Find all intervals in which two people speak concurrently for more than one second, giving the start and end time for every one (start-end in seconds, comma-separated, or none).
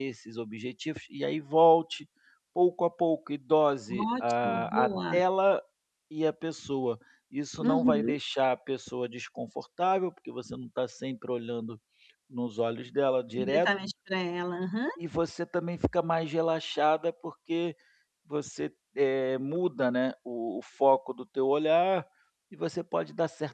3.9-5.1